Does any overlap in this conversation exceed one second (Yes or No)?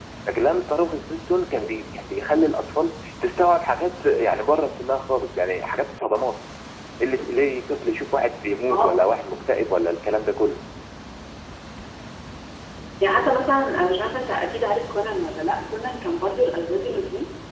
No